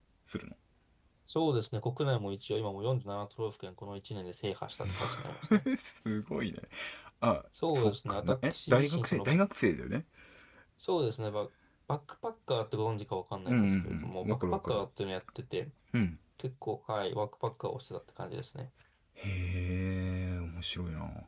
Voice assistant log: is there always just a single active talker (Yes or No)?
No